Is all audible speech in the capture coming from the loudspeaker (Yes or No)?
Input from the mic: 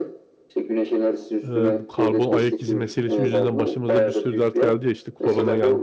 No